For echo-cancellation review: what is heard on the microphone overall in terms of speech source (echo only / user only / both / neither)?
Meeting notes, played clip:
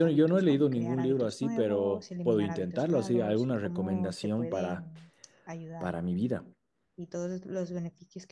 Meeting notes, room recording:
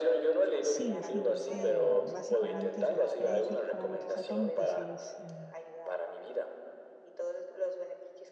both